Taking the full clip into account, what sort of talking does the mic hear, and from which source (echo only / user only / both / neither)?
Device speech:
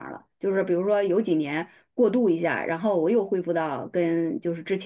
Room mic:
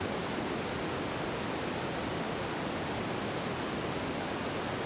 neither